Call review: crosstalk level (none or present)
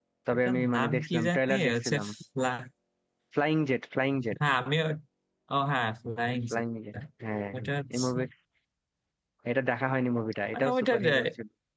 present